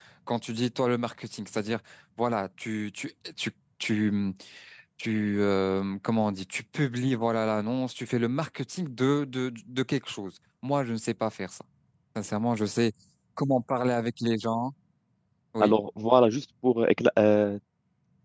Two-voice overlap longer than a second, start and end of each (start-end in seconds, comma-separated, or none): none